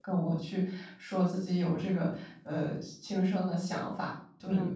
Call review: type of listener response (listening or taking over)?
taking over